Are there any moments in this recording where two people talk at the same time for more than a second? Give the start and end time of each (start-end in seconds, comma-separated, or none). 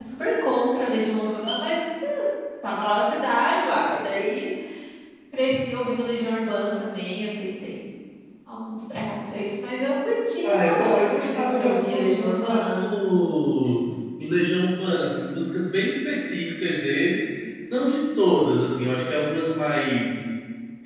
10.4-12.9